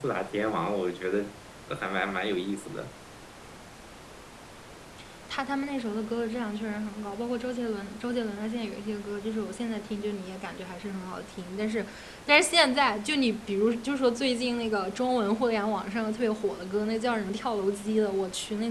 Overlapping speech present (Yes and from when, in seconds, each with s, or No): No